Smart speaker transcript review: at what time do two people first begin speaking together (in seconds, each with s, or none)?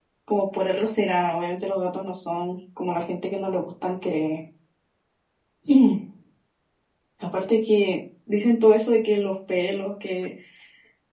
none